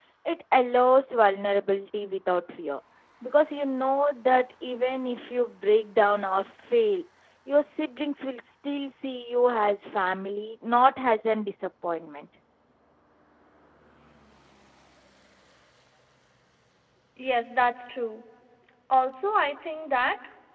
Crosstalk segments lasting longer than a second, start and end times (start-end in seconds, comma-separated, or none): none